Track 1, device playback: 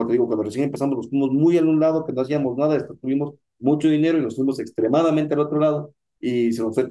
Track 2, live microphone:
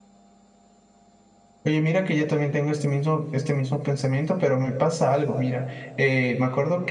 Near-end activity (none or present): present